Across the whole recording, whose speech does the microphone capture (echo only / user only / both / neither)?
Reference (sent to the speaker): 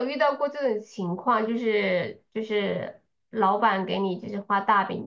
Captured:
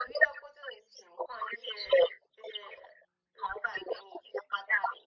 echo only